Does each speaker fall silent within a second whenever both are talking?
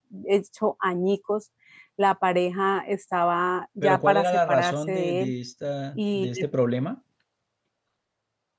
No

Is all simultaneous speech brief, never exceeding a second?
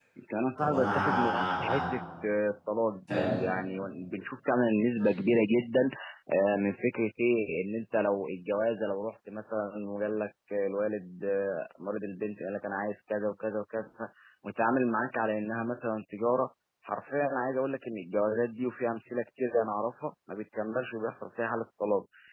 No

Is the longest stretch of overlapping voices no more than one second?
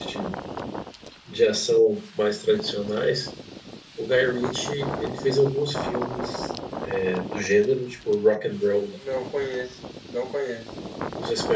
Yes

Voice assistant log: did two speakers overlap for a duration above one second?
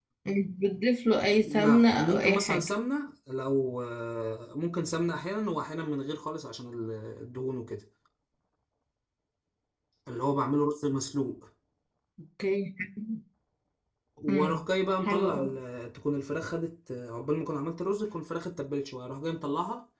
Yes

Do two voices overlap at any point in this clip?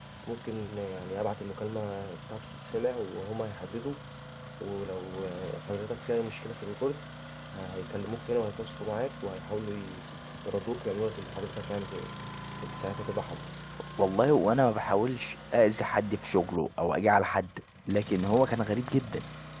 No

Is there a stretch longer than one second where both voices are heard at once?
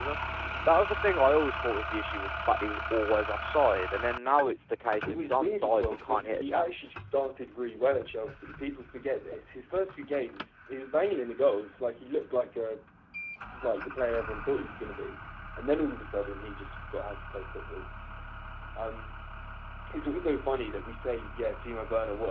Yes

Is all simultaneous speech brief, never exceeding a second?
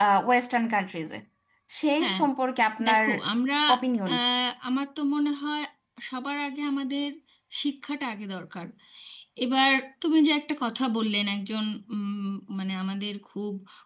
Yes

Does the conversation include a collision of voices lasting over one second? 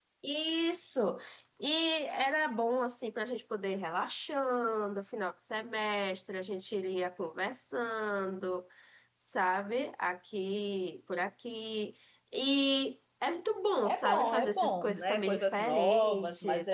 Yes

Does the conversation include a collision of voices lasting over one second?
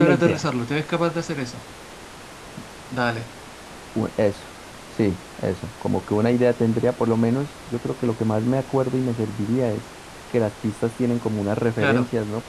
No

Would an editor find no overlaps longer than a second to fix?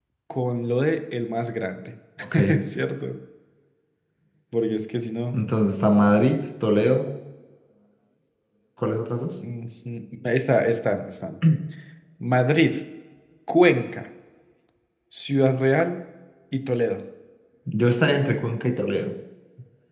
Yes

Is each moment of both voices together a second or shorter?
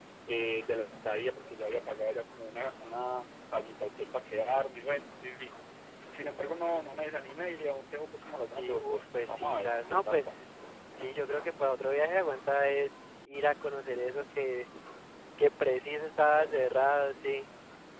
No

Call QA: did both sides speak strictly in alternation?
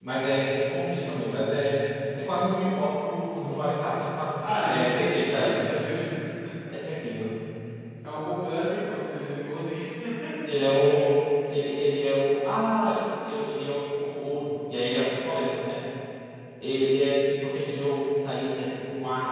No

